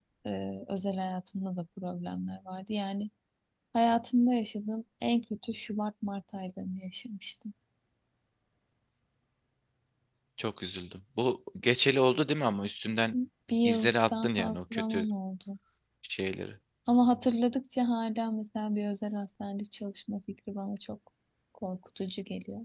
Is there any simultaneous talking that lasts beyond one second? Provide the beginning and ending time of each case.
13.6-15.1

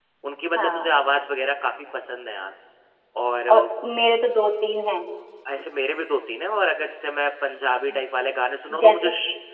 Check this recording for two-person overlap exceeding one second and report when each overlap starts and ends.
none

